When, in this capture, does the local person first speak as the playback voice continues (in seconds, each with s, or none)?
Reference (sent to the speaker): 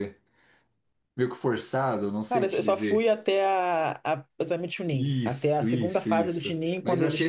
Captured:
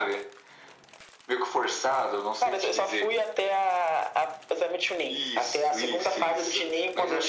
none